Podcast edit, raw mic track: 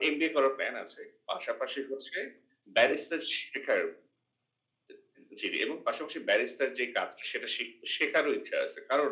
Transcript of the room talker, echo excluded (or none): none